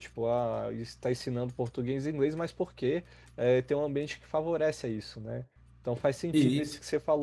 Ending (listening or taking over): listening